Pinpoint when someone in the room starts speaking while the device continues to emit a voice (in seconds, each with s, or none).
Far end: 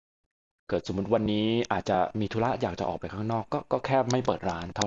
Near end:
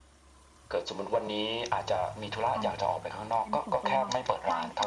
2.5 s